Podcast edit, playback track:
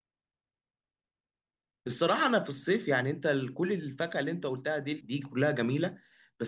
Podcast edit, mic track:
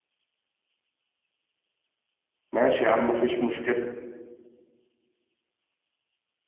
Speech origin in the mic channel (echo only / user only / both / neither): user only